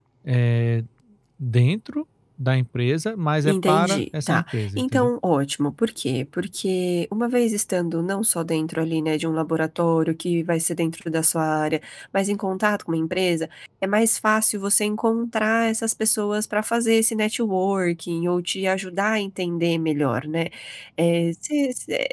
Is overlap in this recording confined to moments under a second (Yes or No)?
No